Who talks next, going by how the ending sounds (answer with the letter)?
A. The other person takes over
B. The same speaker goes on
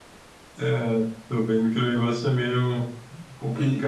A